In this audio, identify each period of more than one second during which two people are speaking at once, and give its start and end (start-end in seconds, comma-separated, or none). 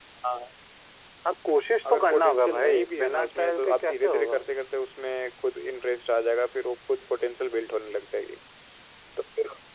1.9-4.4